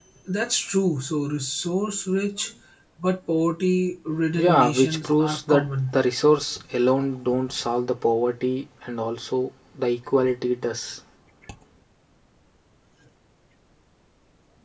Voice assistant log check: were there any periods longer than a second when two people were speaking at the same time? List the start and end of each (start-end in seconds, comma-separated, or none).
4.4-6.0